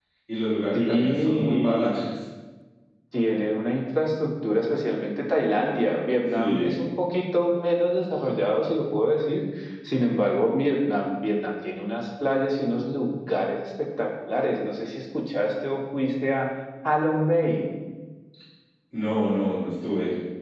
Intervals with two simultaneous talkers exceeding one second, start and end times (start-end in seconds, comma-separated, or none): 0.7-2.0